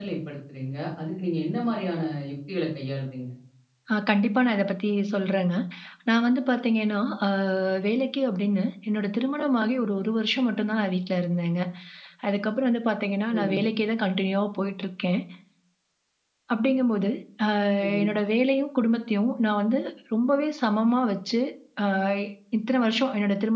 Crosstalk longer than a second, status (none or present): none